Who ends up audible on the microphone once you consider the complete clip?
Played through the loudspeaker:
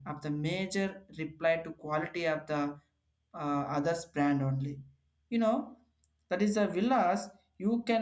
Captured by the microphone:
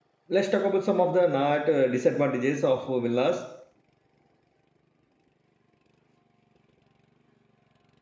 user only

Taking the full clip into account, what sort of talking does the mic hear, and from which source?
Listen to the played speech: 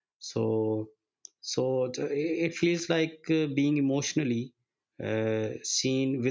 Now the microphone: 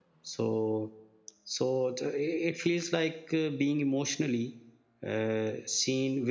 echo only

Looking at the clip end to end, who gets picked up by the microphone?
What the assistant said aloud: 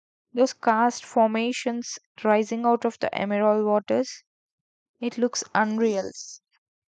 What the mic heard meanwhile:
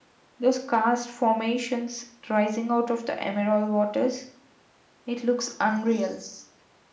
echo only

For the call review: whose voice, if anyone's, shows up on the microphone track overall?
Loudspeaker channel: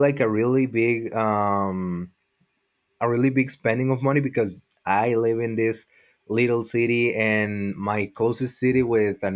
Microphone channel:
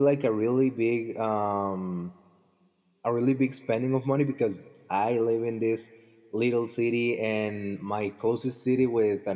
echo only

